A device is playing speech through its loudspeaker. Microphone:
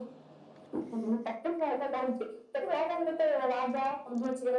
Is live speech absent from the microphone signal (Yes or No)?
Yes